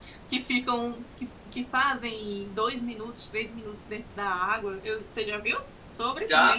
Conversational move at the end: taking over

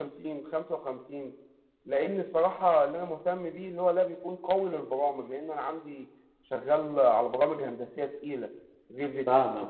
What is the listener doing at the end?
taking over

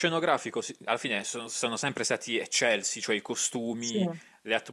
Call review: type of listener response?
listening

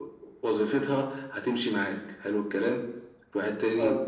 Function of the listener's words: listening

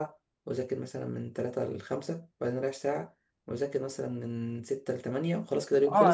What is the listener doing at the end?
taking over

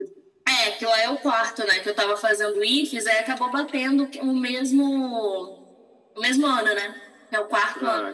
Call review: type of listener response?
taking over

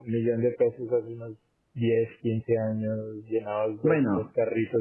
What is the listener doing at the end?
listening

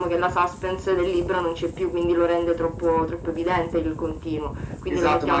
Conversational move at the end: taking over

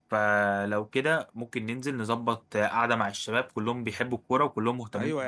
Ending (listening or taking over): taking over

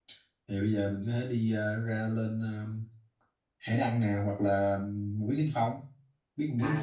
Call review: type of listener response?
taking over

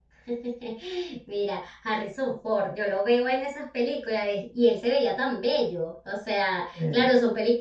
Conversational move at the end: listening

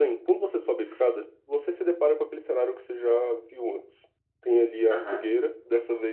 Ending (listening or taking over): listening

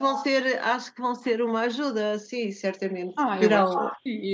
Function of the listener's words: taking over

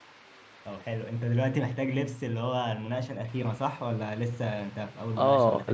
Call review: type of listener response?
taking over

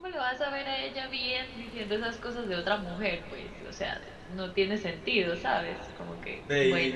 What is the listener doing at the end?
taking over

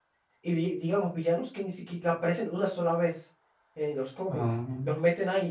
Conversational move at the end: listening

